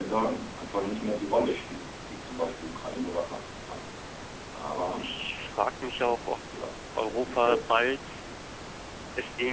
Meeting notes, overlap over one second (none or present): none